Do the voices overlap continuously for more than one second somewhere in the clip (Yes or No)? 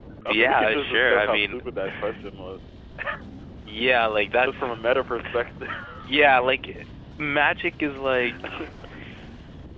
Yes